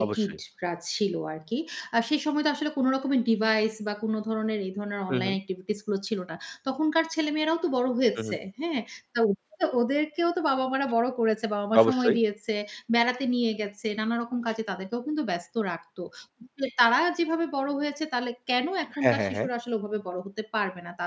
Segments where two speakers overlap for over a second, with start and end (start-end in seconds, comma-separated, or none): none